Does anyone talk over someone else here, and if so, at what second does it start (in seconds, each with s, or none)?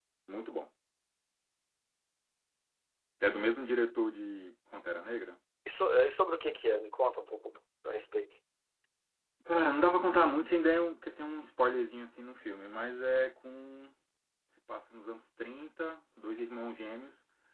none